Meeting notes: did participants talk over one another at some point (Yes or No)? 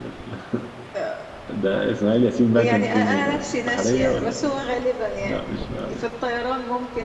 Yes